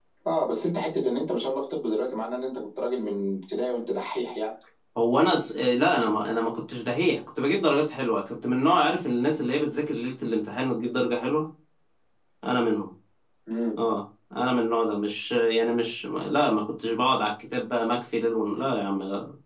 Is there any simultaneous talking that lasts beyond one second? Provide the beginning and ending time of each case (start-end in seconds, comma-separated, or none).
none